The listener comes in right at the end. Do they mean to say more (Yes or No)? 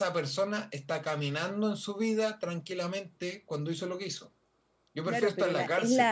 Yes